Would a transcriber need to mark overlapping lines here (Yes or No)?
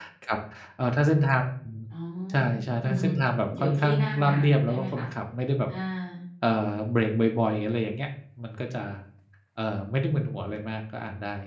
Yes